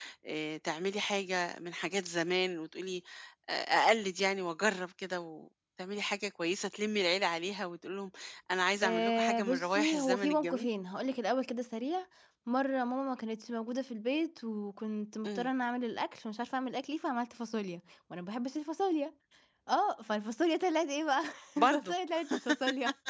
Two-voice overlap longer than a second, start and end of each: 8.8-10.7

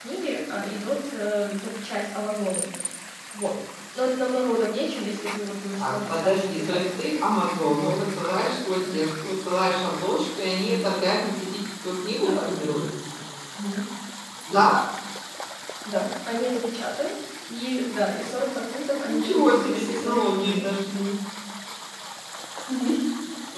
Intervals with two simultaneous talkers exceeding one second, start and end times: 5.8-7.2, 19.1-20.7

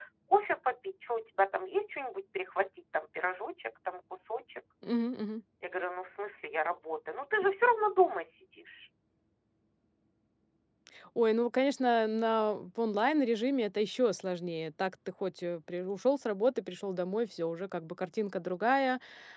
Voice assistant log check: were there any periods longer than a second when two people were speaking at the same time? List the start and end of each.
none

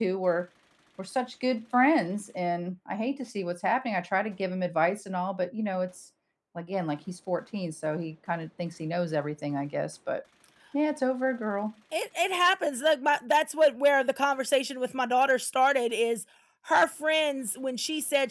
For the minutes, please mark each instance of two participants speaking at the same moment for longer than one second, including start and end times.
none

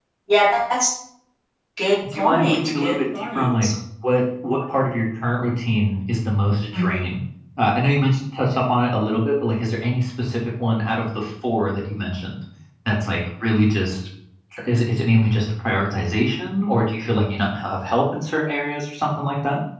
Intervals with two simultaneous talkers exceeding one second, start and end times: 2.2-3.7

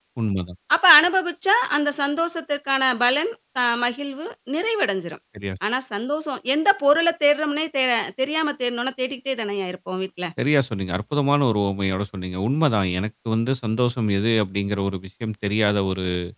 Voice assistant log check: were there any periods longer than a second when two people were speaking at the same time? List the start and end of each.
none

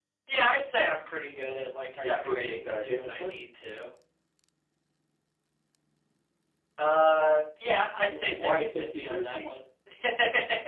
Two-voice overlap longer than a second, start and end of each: 2.0-3.4, 8.1-9.5

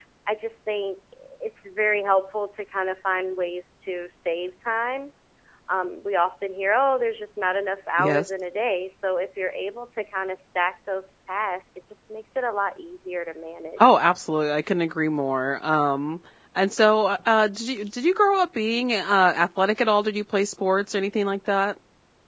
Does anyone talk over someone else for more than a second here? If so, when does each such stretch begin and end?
none

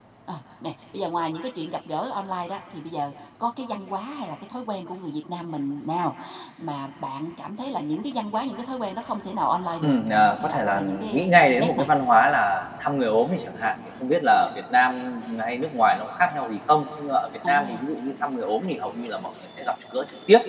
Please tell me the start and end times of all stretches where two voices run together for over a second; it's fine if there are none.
9.8-11.9

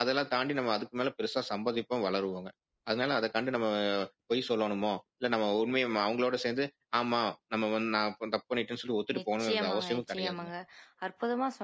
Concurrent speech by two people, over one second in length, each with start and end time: 9.2-10.5

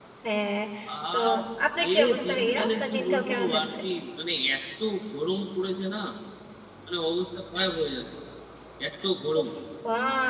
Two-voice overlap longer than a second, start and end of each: 1.9-3.6

